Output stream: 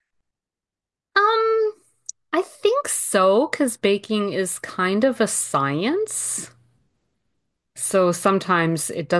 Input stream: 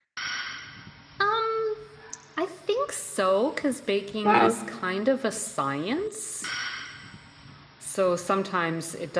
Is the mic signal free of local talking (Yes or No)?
No